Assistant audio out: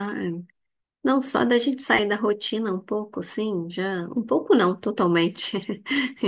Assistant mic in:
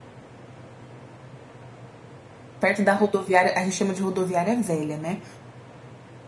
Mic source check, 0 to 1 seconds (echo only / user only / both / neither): neither